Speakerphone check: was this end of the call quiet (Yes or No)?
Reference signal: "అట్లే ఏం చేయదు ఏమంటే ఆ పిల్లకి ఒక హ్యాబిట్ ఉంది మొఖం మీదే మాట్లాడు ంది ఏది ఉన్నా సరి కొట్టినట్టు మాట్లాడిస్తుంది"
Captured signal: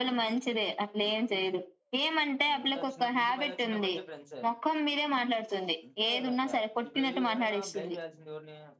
No